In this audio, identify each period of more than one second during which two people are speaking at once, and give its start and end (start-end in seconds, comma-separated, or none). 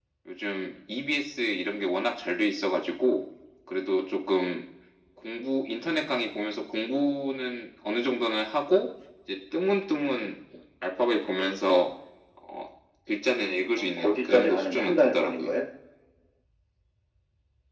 13.8-15.5